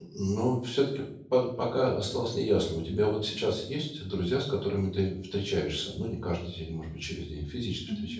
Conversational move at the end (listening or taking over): taking over